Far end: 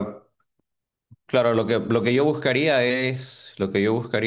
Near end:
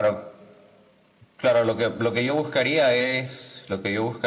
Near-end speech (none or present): none